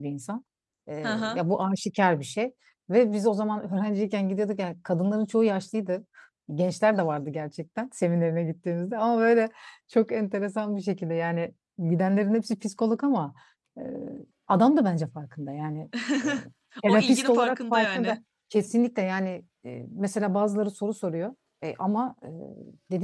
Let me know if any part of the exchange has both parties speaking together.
Yes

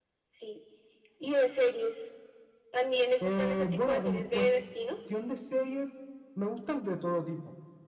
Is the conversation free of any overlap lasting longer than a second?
No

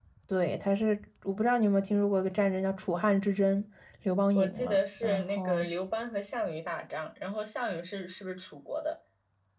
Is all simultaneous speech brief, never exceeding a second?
No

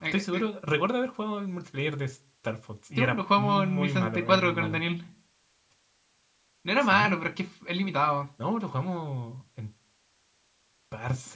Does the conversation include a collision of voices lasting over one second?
Yes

